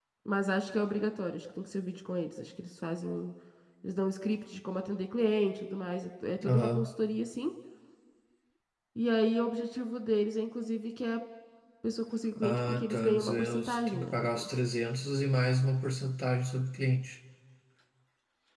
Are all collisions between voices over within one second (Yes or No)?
No